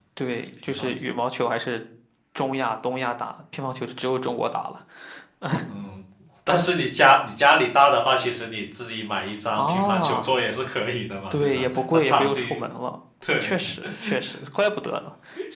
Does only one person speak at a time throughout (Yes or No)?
No